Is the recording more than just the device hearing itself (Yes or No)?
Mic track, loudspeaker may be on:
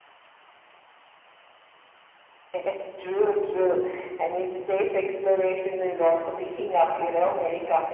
No